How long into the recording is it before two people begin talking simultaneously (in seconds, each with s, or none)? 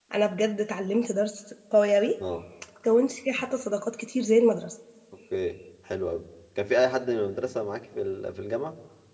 none